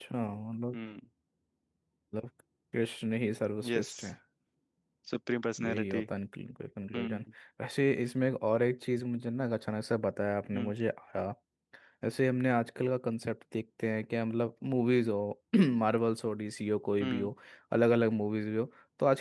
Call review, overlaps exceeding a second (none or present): none